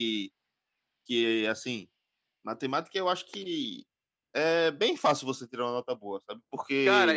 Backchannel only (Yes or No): No